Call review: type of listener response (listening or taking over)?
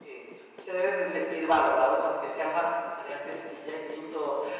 listening